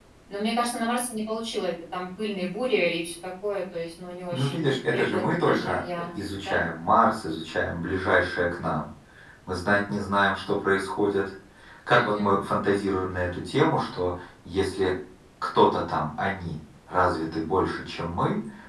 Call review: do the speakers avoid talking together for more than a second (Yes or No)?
No